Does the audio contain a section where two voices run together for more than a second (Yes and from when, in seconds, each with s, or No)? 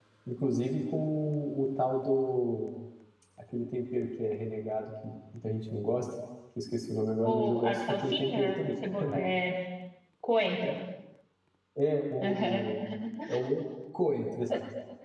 Yes, from 7.2 s